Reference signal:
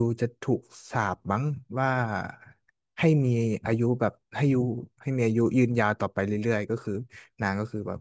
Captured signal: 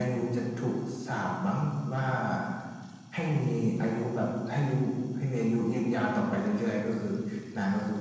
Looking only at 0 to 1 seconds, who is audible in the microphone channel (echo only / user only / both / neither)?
echo only